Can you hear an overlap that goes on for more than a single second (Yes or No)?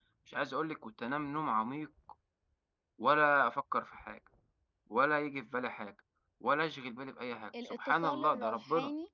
Yes